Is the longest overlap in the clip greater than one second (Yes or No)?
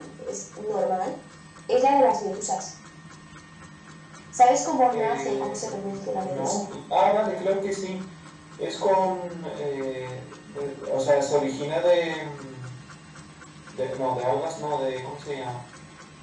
Yes